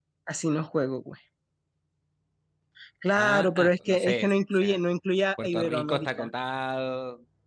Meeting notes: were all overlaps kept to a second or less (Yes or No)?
No